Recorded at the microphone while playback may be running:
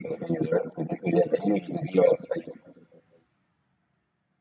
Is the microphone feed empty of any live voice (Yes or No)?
Yes